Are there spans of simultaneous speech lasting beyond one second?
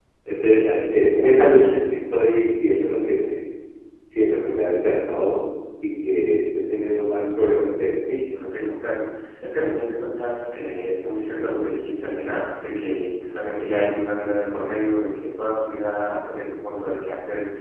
No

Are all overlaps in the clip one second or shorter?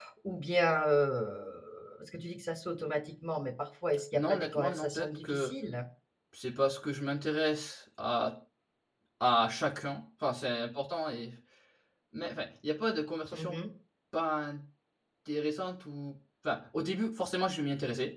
No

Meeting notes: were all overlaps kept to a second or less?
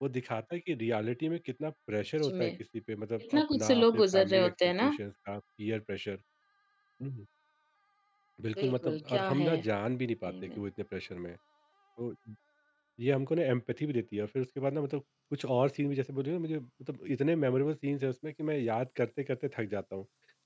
No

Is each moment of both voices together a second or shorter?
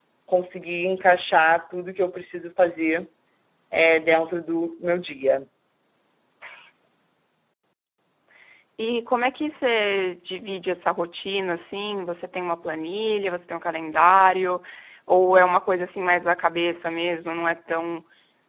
Yes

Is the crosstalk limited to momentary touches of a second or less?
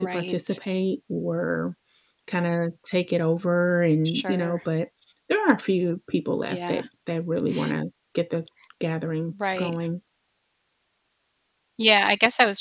Yes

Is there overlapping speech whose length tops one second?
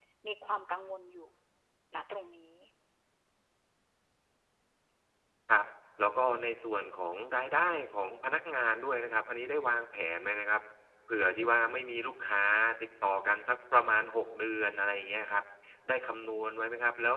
No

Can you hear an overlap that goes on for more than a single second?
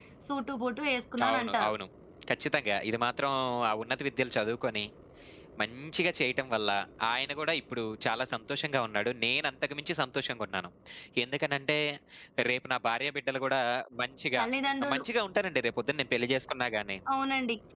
No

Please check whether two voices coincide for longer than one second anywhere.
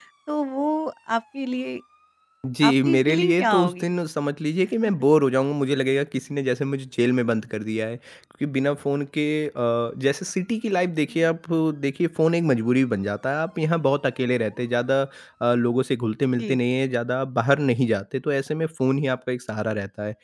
Yes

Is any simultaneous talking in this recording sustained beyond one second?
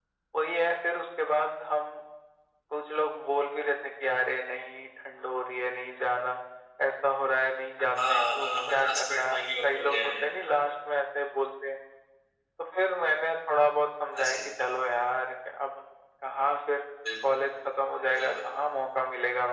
Yes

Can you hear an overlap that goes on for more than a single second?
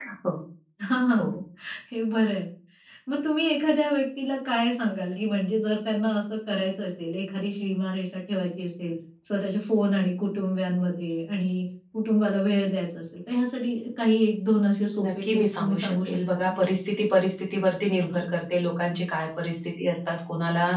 Yes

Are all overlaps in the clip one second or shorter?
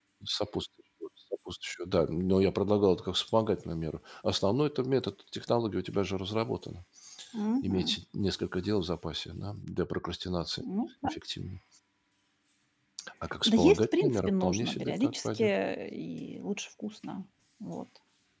No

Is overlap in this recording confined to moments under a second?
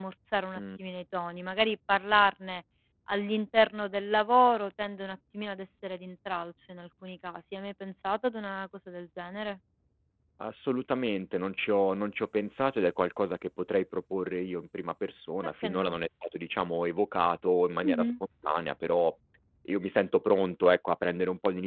Yes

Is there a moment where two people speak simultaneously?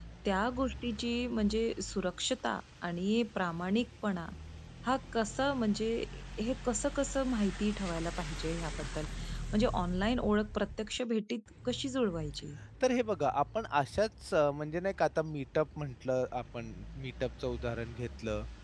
No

